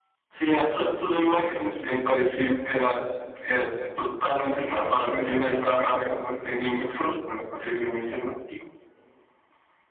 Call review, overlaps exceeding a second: present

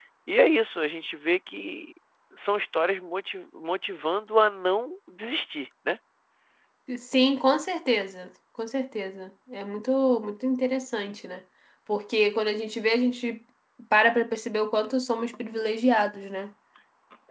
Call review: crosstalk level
none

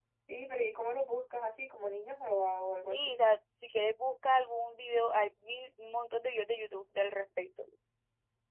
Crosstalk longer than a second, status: none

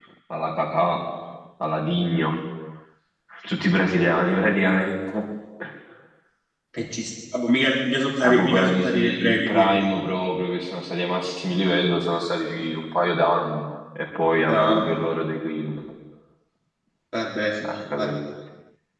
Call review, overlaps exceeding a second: present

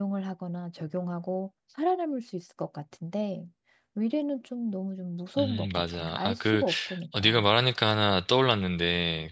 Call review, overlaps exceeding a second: present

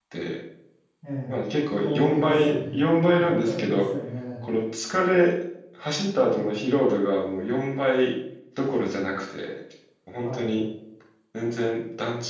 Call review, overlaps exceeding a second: present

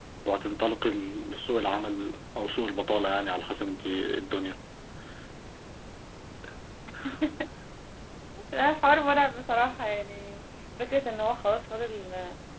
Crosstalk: none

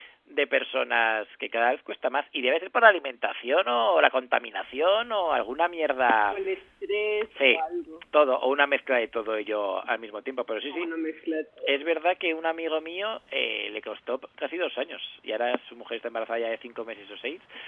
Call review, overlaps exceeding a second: none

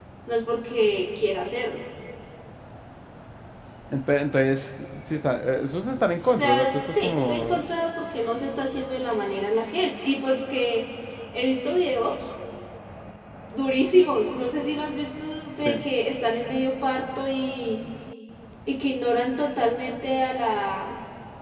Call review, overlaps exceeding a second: present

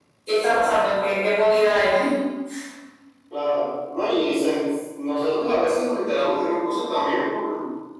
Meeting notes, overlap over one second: none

